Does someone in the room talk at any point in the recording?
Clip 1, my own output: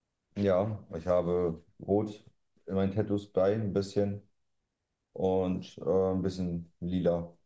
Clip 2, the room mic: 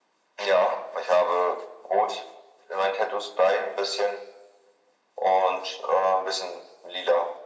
No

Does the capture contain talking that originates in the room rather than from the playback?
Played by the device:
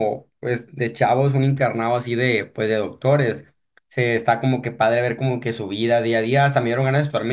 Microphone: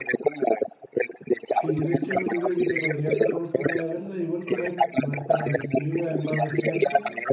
Yes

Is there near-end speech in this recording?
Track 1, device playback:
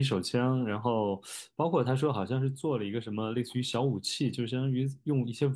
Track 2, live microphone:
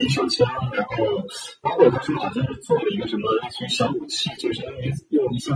No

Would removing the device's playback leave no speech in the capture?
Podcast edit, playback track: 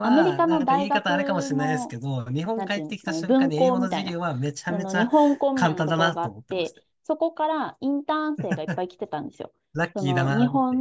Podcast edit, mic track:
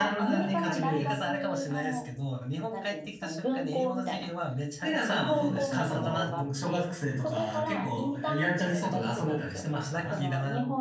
No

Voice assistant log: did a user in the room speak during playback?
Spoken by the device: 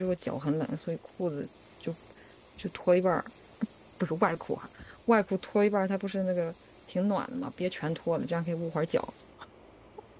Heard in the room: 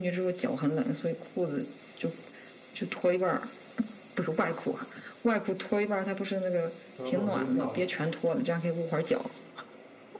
Yes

